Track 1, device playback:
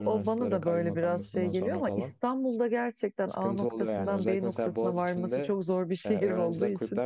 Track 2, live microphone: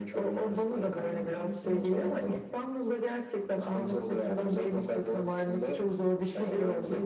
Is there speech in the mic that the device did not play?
No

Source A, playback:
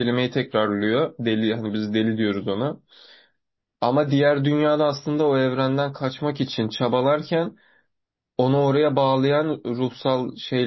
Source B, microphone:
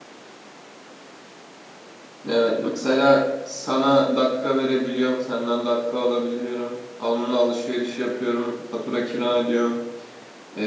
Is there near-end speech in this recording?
Yes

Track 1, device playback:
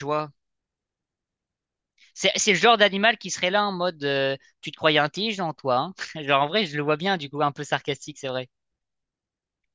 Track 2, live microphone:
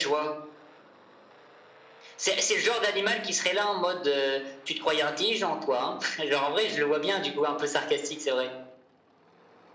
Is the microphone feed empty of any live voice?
Yes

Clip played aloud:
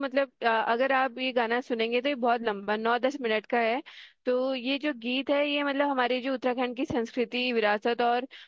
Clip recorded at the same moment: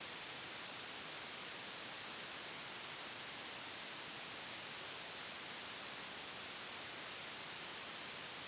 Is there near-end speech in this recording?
No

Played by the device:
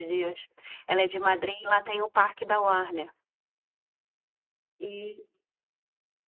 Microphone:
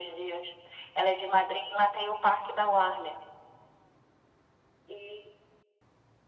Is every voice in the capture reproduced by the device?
Yes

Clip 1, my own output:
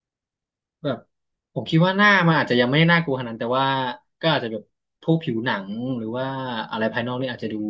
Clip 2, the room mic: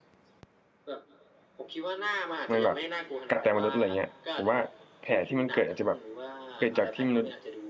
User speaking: Yes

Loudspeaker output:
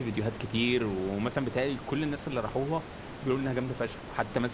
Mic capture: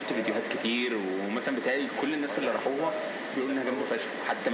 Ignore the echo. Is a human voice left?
Yes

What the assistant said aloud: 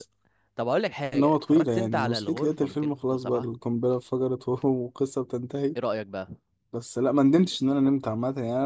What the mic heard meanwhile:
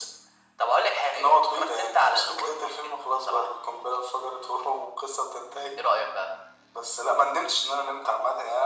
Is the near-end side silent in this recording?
Yes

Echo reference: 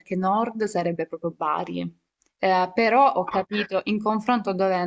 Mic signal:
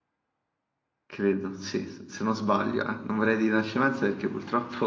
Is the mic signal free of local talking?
No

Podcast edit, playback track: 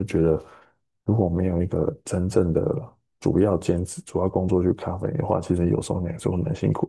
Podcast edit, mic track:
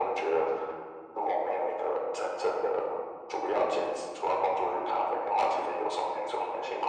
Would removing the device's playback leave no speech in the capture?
Yes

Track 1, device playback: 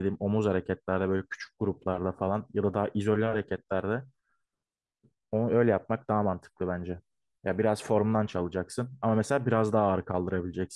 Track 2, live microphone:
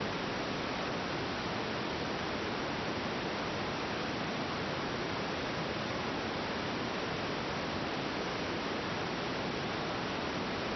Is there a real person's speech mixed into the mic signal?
No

